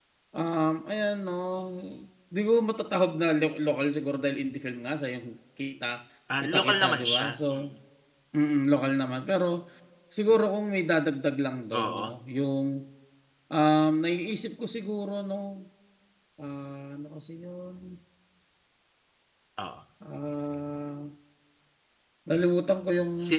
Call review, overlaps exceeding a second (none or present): present